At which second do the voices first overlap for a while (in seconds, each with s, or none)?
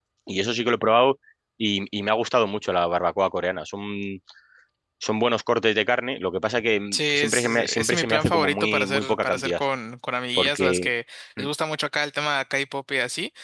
6.9 s